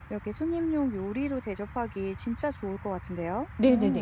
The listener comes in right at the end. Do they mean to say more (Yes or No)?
Yes